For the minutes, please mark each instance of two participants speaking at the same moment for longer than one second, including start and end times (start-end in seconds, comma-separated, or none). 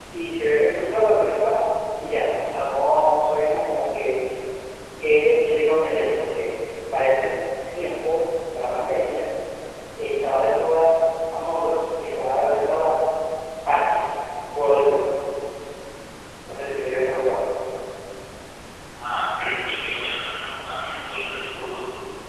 none